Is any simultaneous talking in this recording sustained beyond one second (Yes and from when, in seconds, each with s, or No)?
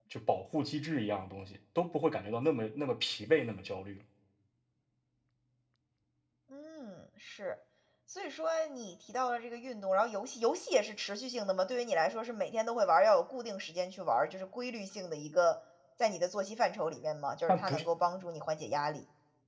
No